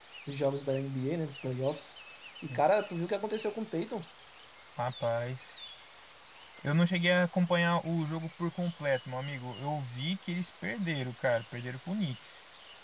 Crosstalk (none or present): none